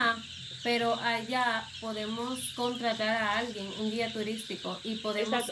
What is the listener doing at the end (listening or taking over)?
taking over